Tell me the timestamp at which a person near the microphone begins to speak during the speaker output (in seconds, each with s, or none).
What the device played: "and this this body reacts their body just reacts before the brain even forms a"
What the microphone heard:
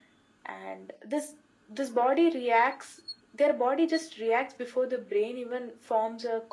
none